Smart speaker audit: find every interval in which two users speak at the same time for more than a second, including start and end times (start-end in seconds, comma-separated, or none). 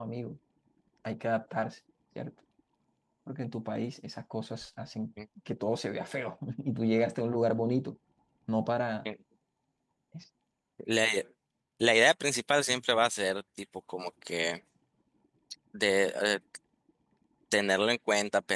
none